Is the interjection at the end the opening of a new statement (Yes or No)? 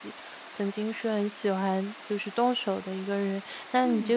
No